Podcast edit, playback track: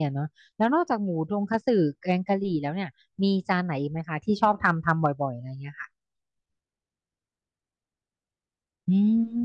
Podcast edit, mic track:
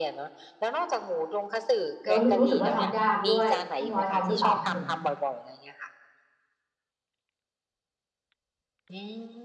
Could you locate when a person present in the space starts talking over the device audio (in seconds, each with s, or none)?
2.0 s